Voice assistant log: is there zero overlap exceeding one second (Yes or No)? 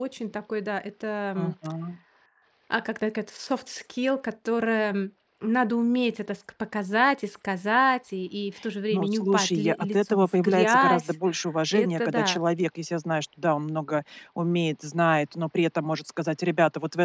No